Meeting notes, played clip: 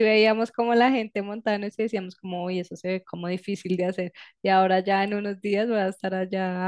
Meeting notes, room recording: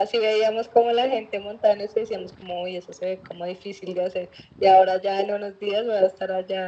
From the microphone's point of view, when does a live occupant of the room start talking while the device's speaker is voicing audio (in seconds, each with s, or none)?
none